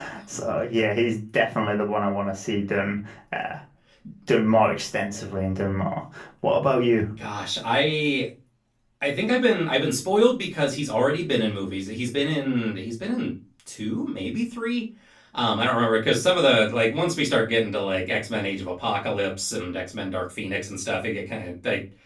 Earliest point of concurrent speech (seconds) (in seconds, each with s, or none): none